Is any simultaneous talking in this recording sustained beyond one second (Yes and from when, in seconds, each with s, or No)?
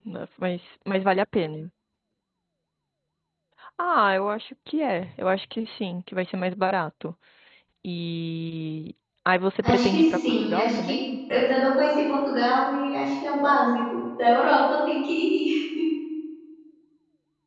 Yes, from 9.6 s